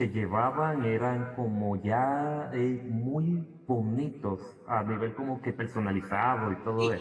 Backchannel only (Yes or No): No